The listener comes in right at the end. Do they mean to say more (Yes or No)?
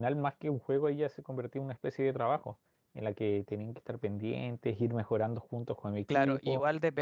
Yes